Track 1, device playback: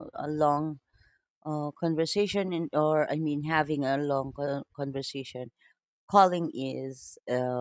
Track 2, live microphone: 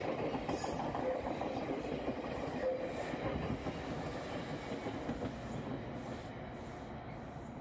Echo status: none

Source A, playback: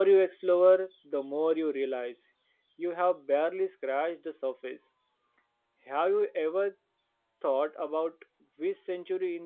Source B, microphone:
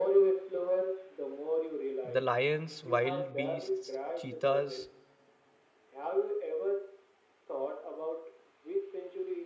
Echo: present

